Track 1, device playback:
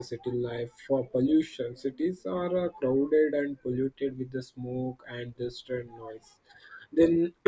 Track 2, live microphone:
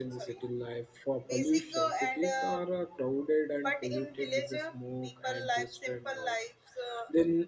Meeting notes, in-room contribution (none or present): present